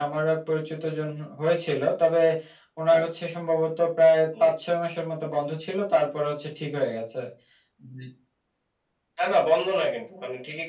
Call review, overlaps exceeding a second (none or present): none